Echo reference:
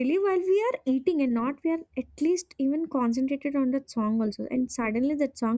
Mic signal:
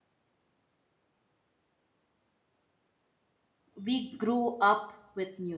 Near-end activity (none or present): present